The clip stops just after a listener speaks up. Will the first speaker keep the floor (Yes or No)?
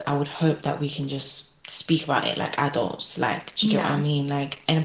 Yes